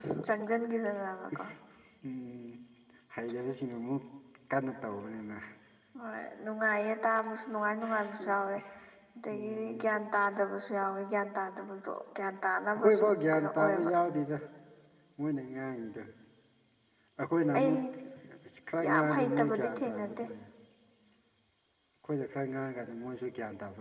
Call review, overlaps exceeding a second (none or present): present